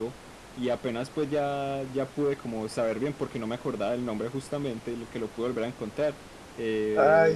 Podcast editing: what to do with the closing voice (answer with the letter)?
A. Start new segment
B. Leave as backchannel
A